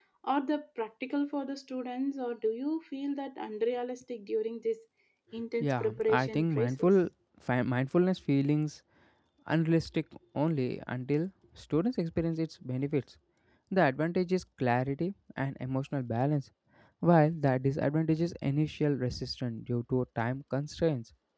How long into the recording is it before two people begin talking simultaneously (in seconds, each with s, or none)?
5.6 s